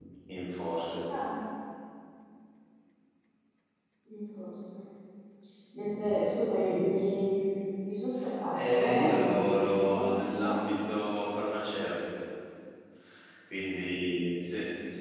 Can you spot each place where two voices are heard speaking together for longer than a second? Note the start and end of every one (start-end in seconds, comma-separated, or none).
8.5-10.6